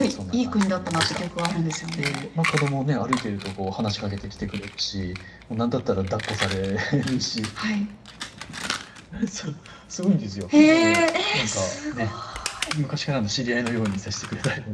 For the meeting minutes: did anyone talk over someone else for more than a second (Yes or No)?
Yes